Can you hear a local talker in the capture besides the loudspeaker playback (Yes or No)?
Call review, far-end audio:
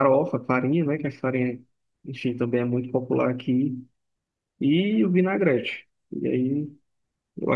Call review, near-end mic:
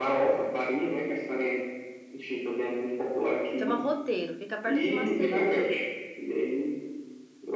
Yes